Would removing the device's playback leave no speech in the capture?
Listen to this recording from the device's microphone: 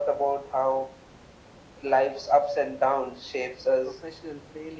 No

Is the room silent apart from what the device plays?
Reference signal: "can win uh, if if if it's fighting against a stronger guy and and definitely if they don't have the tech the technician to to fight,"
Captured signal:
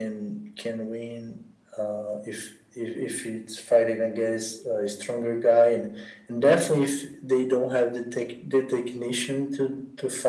Yes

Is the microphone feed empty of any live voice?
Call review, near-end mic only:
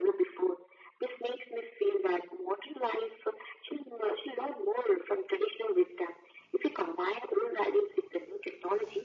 Yes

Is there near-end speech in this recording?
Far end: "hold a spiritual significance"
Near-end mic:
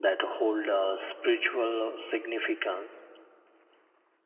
No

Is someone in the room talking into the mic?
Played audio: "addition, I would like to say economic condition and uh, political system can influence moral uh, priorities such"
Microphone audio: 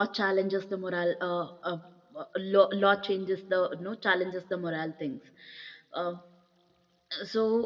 Yes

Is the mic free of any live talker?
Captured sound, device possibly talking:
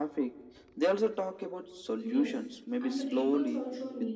No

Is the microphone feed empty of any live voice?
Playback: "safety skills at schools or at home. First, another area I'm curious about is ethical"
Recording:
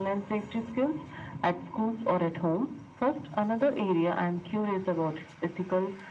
Yes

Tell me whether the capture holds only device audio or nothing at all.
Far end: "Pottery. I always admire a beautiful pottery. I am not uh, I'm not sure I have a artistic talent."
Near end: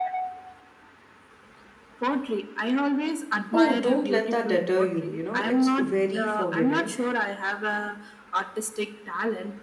No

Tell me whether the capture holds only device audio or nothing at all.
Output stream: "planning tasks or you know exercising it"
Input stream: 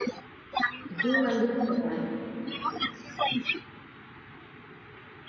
No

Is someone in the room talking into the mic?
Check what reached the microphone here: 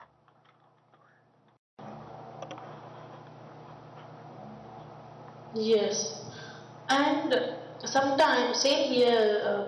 Yes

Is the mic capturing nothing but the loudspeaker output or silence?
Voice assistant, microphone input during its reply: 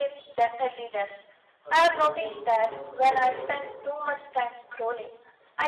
No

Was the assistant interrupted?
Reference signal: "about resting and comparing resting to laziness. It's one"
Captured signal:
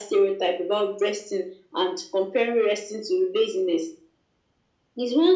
No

